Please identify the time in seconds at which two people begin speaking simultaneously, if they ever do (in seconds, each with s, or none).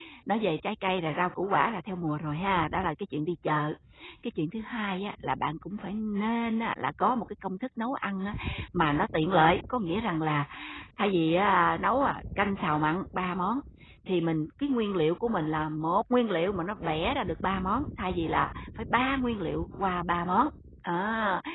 none